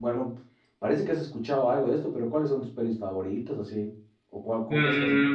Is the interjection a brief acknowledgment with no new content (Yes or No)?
No